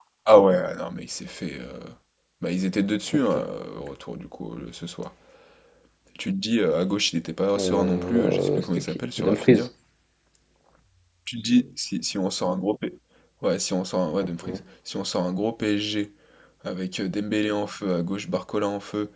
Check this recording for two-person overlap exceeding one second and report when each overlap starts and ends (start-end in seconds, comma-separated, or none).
7.6-9.7